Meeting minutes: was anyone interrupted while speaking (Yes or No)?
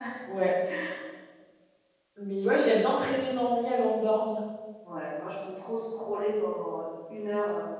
No